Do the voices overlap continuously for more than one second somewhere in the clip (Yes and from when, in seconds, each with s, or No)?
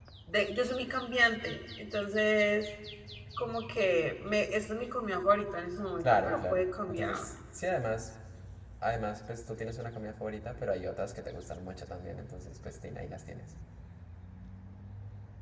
Yes, from 6.0 s